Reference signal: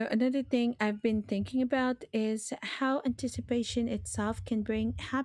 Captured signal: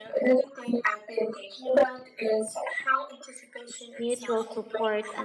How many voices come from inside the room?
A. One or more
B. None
A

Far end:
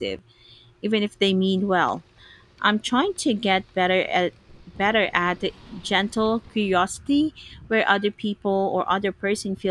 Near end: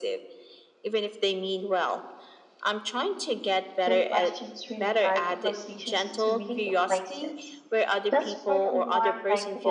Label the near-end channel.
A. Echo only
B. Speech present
B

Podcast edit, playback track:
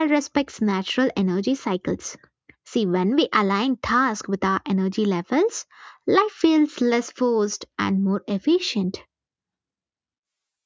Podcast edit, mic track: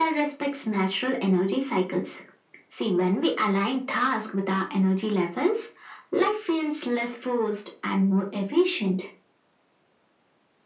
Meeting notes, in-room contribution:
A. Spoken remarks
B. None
B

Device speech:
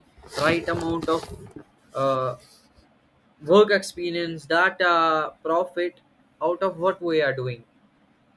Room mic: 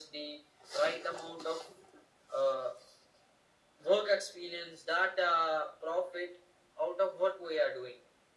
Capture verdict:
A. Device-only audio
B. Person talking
A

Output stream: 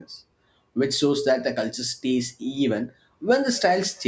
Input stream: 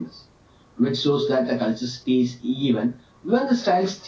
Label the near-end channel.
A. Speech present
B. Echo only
B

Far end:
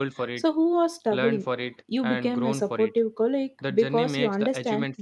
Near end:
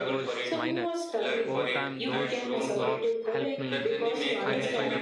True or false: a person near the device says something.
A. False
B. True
B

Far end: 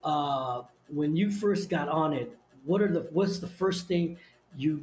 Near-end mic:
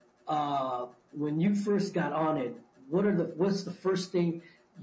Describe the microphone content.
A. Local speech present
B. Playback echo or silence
B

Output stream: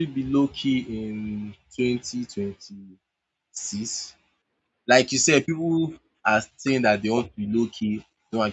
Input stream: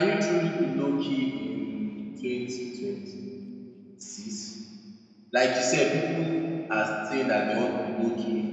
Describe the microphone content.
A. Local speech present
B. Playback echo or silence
B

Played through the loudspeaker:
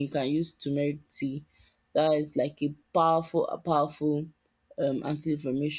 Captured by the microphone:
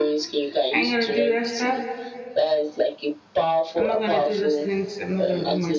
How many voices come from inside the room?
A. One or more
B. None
A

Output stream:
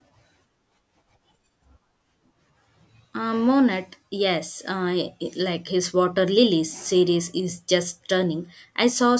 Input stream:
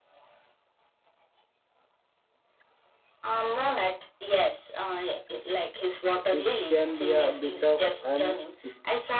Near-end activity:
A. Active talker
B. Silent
A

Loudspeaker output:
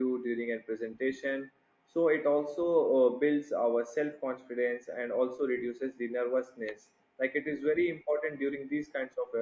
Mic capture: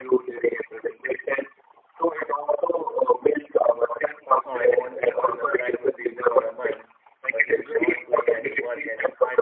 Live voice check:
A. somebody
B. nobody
A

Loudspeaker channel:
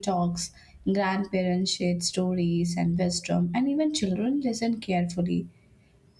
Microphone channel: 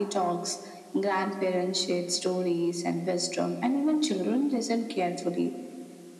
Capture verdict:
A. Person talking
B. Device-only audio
B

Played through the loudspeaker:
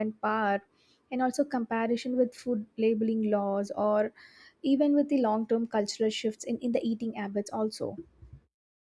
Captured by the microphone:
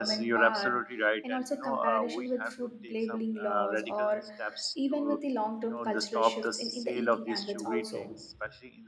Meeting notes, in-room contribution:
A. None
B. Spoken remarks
B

